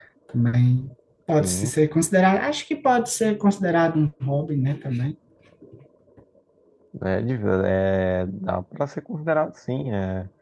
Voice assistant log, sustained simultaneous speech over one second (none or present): none